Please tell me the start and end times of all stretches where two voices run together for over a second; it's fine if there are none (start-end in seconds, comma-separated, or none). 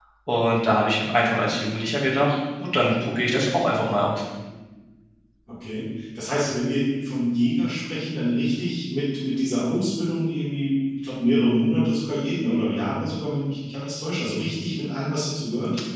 none